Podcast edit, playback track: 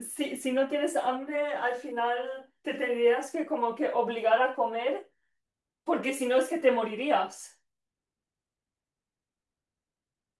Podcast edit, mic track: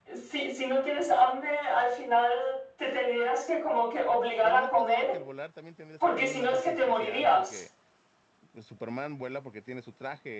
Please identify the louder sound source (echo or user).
echo